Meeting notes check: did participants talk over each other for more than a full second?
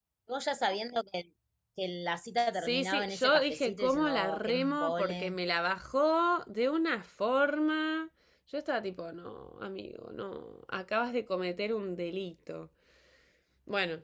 Yes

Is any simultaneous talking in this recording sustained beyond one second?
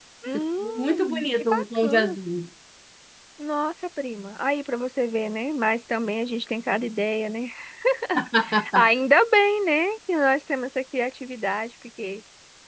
Yes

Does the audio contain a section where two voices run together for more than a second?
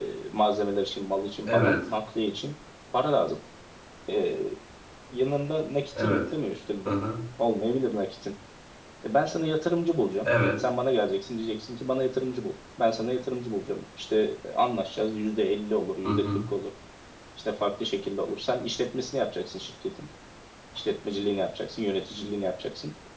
No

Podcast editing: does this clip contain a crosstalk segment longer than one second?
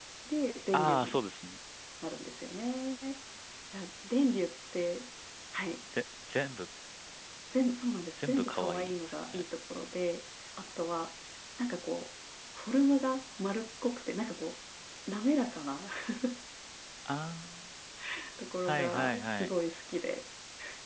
Yes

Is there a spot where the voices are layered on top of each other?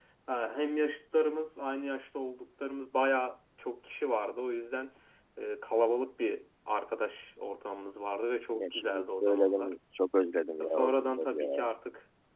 Yes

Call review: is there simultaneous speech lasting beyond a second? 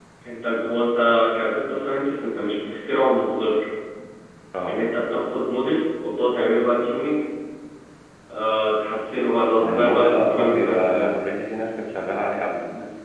Yes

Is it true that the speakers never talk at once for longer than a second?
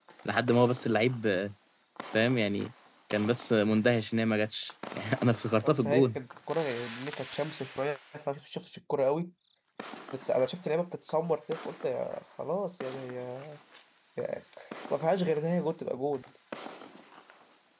Yes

